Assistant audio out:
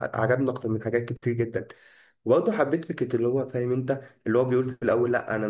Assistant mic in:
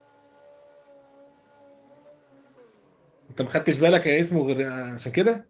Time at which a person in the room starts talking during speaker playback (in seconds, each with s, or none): 3.3 s